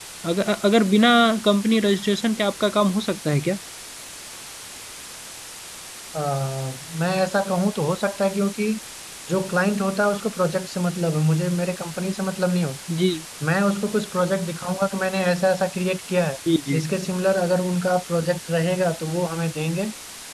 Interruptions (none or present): none